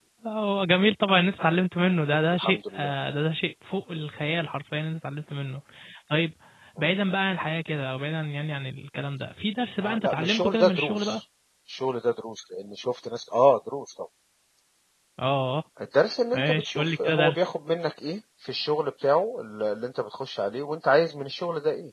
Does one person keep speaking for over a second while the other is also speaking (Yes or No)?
Yes